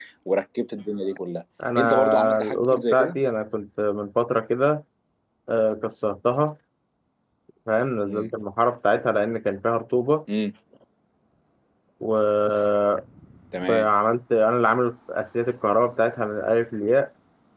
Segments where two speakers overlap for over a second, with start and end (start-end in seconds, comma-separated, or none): 1.8-3.2